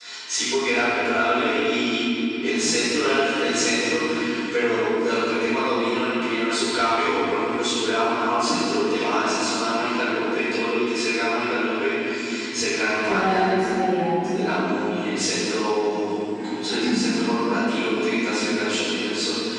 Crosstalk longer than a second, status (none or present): none